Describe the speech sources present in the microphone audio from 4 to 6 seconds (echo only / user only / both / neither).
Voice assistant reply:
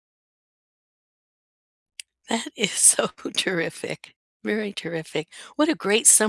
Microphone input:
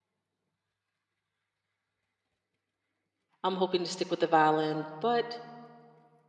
user only